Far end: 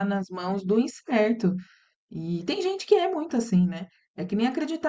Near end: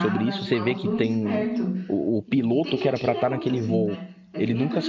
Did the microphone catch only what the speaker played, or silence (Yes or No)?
No